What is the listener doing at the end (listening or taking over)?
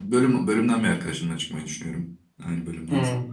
taking over